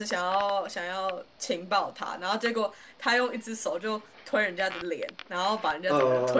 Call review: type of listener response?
taking over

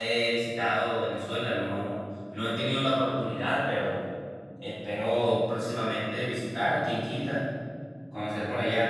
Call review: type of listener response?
listening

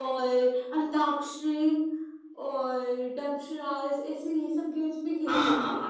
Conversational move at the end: taking over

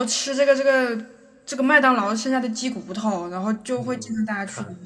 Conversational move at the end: taking over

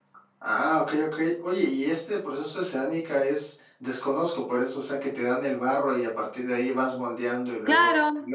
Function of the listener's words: taking over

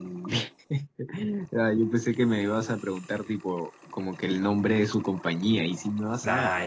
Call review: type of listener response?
taking over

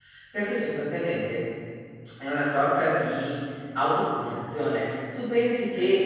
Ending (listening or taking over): listening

